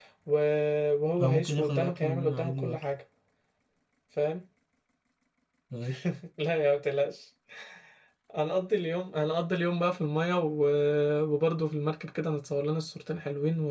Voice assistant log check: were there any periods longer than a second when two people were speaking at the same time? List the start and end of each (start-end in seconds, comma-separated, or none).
1.2-2.9